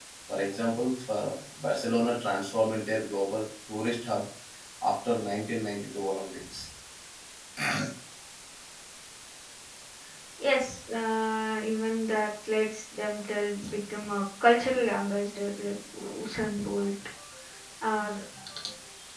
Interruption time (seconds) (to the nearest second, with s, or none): none